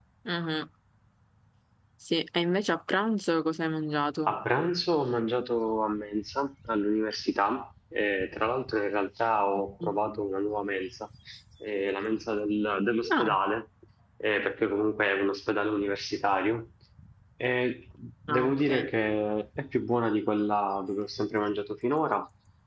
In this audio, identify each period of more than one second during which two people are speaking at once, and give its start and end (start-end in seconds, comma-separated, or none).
none